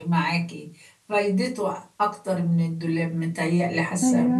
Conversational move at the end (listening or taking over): listening